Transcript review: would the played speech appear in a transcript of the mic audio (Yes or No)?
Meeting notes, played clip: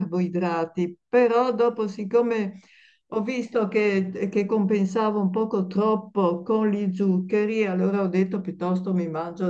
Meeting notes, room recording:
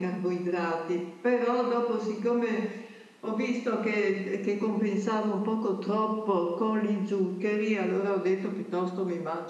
Yes